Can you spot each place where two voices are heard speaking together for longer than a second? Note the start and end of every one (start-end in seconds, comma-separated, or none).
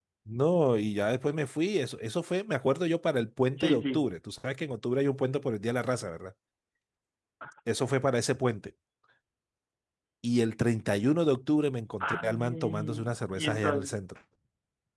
12.0-14.0